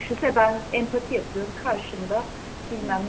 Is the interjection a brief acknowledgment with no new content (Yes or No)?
Yes